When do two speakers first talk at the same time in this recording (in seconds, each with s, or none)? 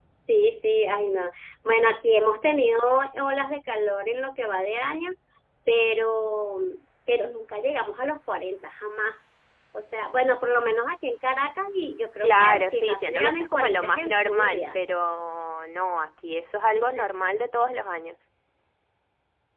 12.2 s